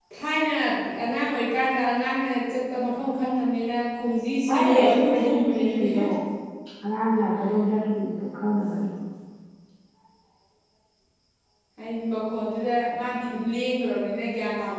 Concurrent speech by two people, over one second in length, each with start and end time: 4.5-6.0

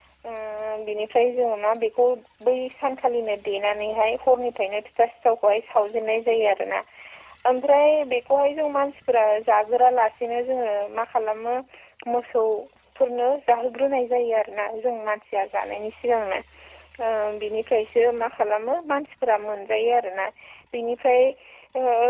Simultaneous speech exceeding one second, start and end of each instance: none

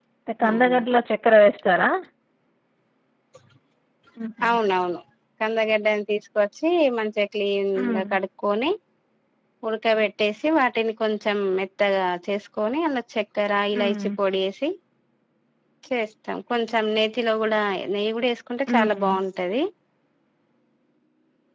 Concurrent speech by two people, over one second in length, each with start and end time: none

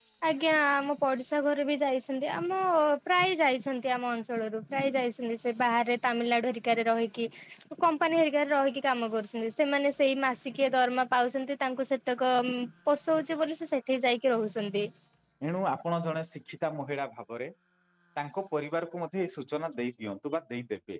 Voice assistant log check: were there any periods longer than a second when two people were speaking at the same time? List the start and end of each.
none

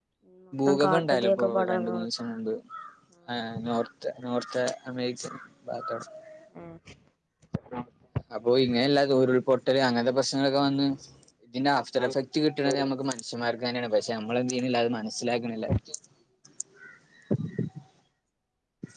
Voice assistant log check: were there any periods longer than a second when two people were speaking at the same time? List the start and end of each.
0.7-2.1

